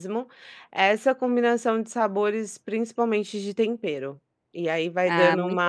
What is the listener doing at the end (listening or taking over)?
taking over